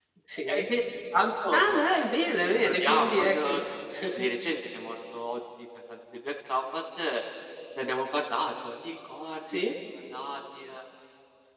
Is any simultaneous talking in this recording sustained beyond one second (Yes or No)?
Yes